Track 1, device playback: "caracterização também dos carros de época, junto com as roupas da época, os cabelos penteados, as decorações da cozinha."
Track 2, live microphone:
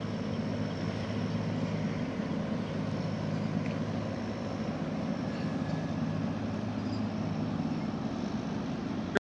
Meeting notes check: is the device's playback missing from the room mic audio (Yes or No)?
Yes